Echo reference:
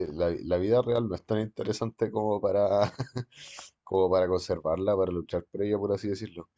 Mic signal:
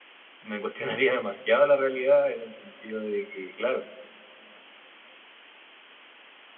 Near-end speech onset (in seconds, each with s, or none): 0.4 s